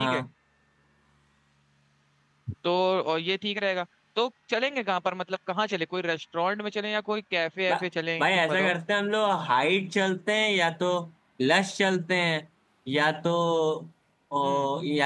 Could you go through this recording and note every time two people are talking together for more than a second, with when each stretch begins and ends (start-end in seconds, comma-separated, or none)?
none